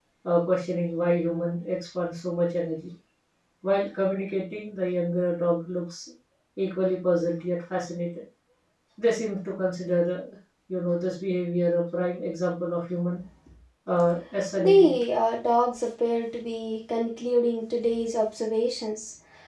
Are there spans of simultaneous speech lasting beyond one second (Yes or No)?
No